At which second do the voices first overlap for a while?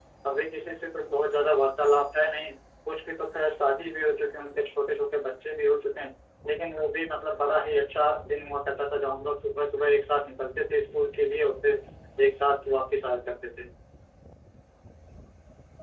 none

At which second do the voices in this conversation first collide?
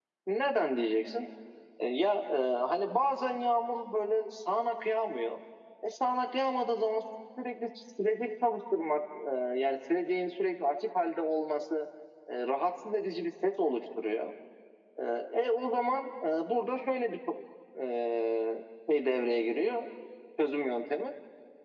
none

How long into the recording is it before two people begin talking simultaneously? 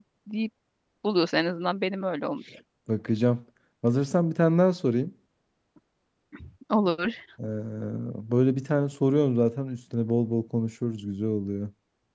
none

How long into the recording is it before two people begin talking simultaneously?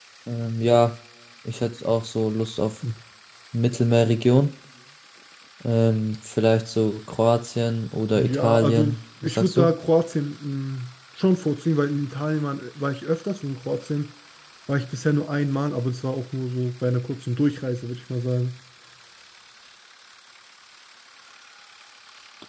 8 s

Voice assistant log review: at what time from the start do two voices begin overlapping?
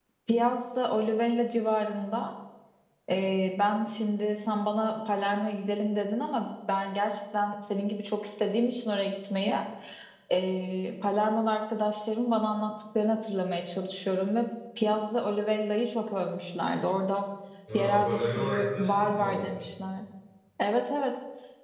18 s

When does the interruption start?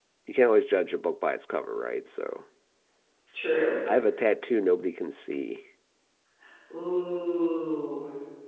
none

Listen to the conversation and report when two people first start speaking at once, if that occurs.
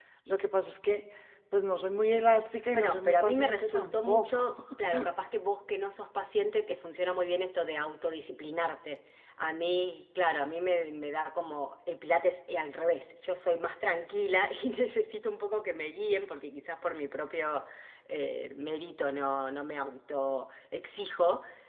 3 s

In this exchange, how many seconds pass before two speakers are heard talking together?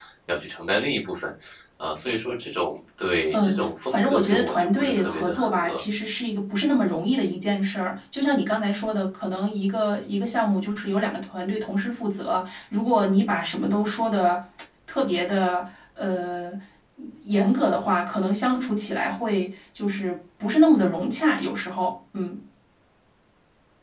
3 s

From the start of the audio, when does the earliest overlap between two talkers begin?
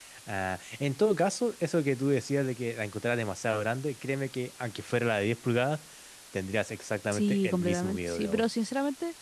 7 s

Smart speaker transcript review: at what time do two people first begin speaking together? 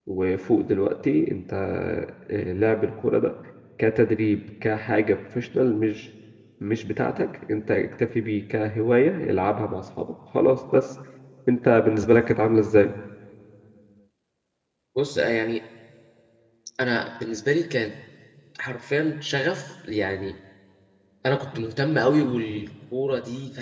none

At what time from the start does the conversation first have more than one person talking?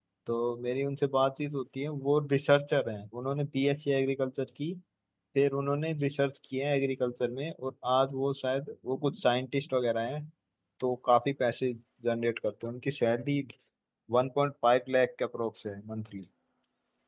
none

